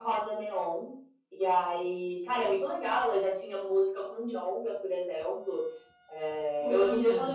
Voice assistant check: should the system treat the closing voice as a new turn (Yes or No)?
No